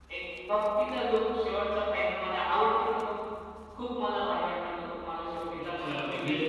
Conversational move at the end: taking over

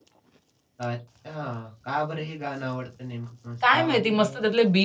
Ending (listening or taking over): taking over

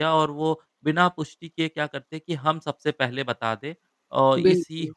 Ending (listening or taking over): listening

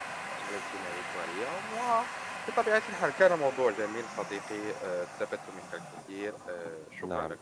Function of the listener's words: taking over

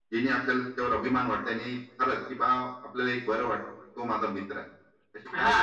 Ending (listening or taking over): taking over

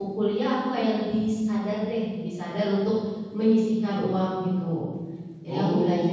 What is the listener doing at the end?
taking over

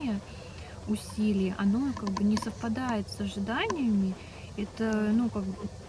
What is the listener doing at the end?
listening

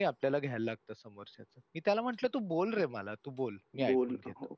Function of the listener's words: taking over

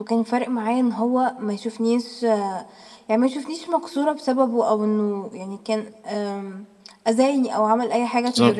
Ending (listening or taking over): taking over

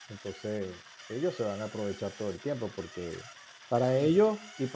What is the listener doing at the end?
listening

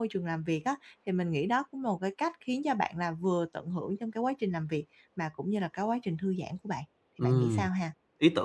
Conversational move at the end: taking over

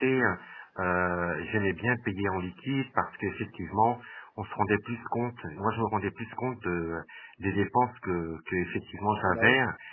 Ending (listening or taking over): listening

